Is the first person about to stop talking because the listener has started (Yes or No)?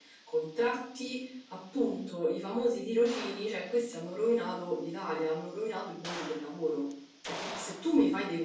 No